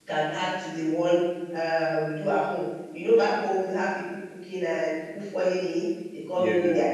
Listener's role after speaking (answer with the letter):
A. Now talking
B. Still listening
B